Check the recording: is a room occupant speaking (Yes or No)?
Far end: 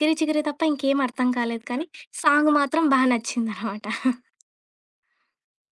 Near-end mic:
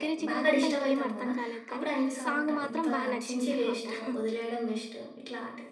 Yes